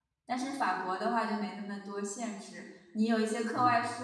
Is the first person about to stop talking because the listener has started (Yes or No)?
No